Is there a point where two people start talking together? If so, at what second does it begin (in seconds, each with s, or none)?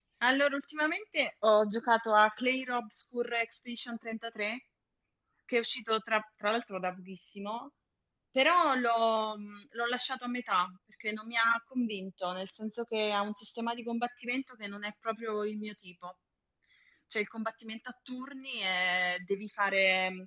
none